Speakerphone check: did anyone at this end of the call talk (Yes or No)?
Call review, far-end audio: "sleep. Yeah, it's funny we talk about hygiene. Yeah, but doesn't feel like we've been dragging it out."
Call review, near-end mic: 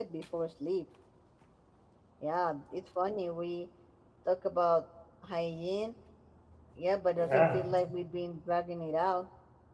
Yes